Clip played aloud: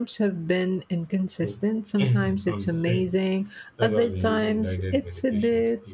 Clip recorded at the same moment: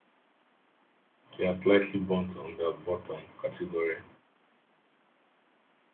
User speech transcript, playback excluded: They are slightly burnt on the bottom category.

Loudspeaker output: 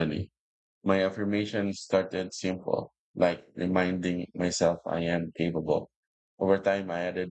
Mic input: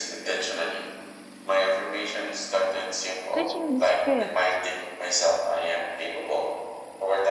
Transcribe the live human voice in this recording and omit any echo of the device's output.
Switching the script

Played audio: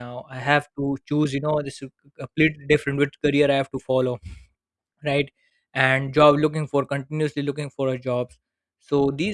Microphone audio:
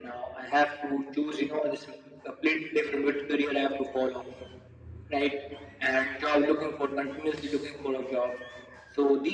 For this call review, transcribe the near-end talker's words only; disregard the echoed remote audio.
none

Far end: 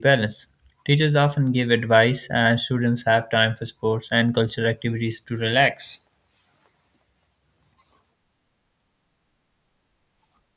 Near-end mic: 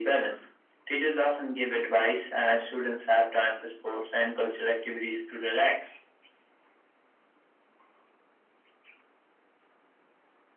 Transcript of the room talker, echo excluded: none

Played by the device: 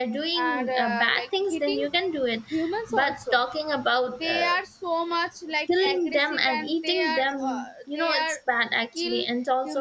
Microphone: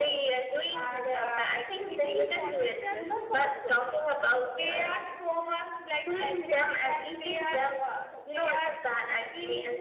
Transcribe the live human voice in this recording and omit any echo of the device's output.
if we forget their

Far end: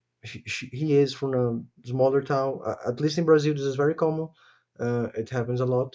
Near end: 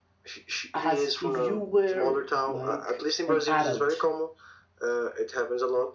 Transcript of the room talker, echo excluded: as if you were like an adult

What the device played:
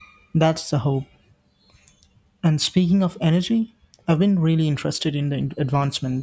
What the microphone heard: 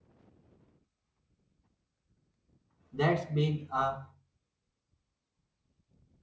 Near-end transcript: that's been a

